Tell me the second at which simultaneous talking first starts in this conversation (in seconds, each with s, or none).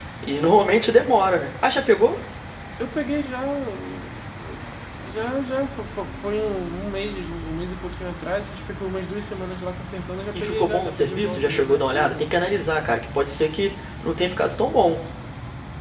10.3 s